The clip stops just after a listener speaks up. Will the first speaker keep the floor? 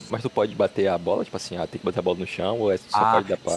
No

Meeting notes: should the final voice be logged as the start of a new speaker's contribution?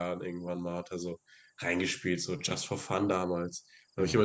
No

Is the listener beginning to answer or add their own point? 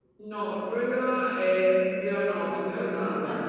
No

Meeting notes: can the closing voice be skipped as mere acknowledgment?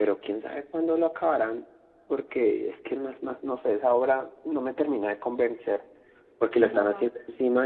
Yes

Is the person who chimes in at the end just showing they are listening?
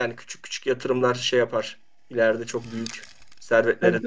No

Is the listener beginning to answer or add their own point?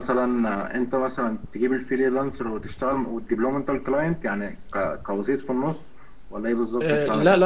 Yes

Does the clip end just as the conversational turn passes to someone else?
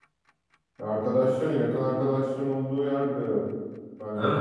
Yes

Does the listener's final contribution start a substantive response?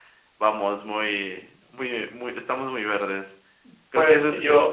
Yes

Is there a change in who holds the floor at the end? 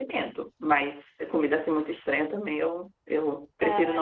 No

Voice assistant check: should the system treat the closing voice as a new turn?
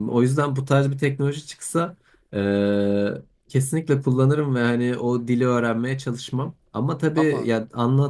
No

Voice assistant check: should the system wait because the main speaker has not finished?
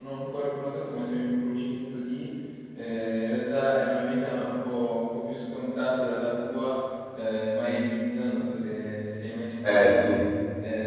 Yes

